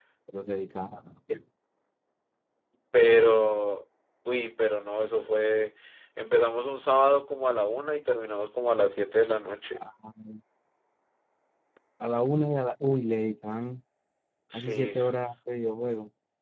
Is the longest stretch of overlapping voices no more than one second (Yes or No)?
Yes